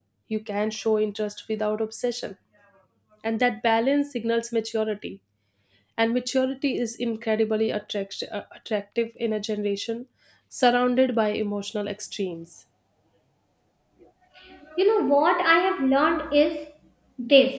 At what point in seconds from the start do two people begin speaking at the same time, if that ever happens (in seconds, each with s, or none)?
none